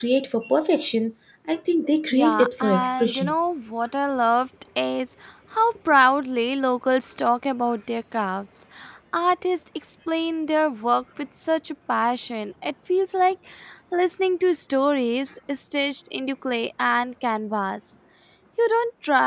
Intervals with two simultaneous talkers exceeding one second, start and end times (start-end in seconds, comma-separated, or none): 2.1-3.3